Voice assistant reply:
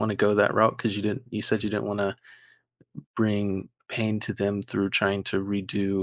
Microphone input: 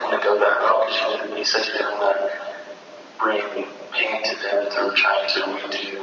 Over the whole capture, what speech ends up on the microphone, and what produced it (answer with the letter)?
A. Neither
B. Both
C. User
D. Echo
D